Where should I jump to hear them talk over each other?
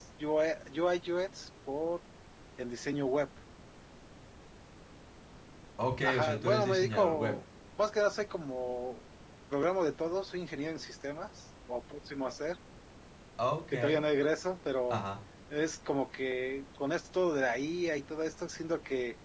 6.0 s

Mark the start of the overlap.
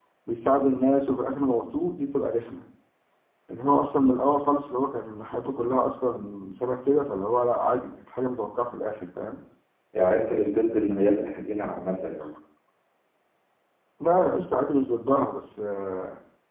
none

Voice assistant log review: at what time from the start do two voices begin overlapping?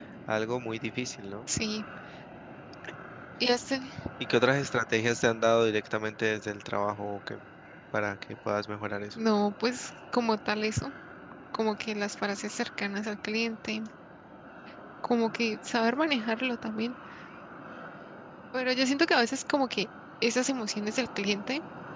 none

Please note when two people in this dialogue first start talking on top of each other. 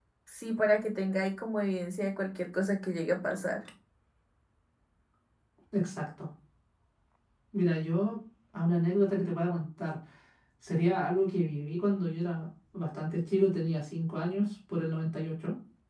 none

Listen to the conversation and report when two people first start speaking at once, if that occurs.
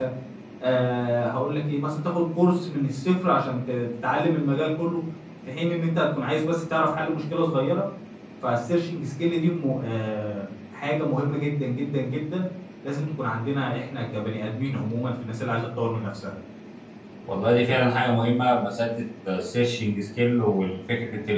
none

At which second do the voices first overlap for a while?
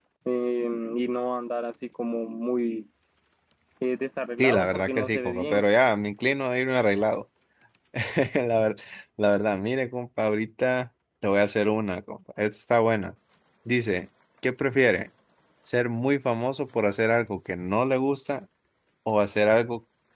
4.4 s

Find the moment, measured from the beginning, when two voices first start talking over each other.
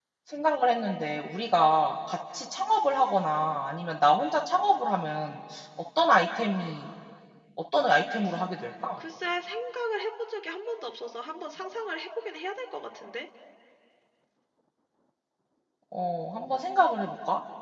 none

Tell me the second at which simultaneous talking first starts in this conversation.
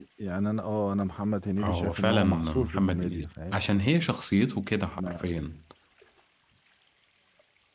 1.6 s

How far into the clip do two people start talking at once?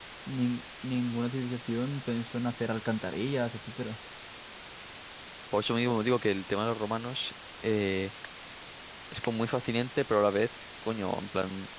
none

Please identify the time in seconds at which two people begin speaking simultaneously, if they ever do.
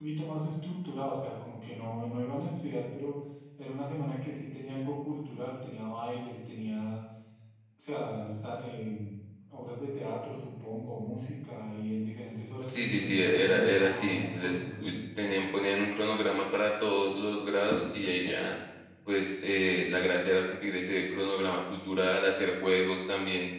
12.6 s

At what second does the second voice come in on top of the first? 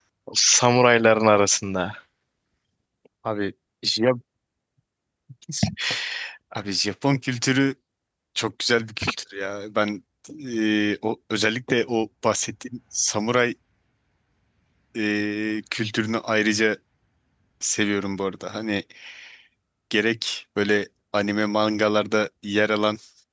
none

